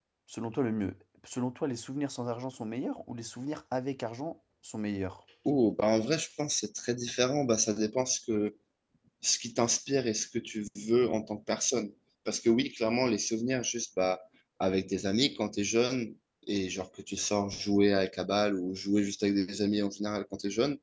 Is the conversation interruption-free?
Yes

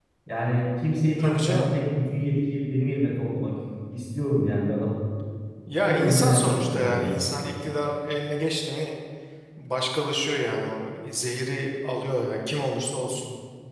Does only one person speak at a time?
No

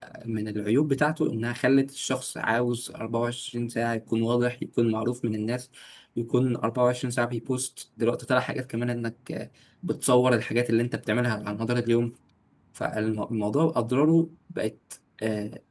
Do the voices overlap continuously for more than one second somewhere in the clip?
No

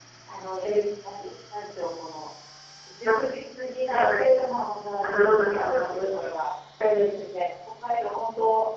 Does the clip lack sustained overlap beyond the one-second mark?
No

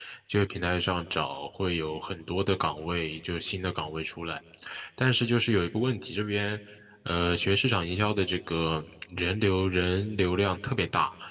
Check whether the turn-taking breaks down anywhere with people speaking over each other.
No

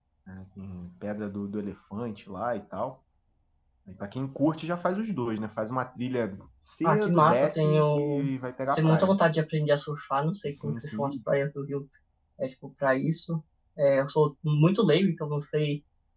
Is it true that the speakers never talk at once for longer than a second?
No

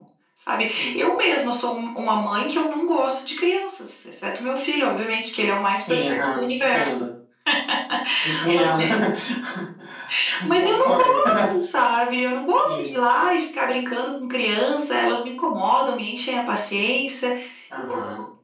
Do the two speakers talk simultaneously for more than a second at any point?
Yes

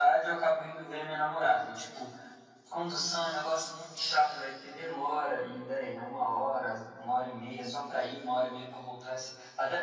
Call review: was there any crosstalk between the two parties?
No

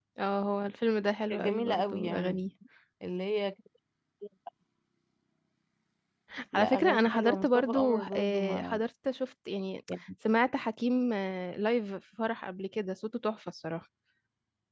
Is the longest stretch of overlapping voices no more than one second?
No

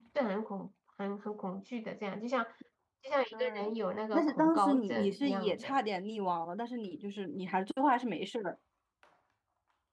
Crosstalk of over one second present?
Yes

